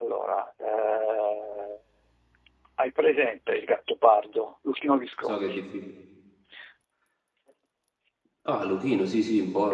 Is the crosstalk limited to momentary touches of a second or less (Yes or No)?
Yes